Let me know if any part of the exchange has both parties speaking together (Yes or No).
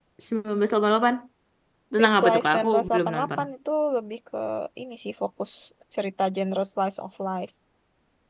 Yes